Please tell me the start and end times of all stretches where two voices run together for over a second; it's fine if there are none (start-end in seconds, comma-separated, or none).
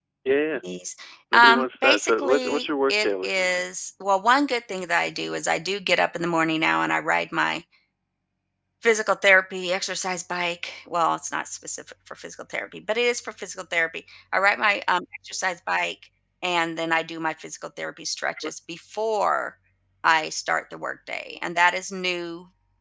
1.3-3.6